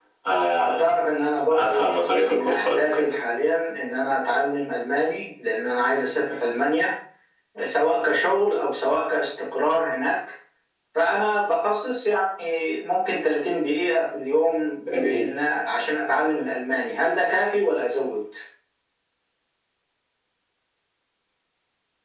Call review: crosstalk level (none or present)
present